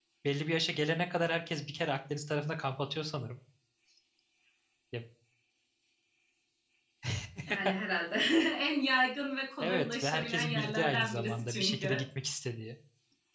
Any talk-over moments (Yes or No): Yes